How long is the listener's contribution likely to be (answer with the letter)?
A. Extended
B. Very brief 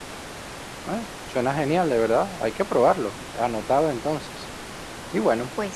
B